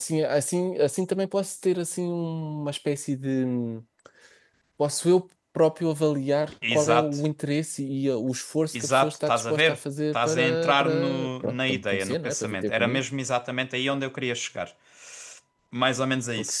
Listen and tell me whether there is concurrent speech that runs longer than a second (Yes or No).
Yes